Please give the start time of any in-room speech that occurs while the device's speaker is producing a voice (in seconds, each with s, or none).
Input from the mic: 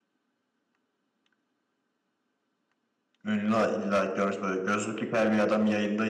3.2 s